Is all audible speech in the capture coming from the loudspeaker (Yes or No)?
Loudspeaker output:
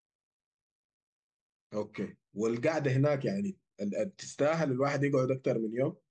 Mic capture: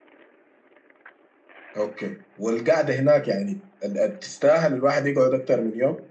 Yes